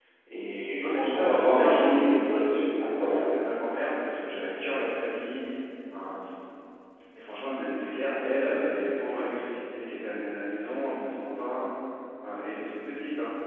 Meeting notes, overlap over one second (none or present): present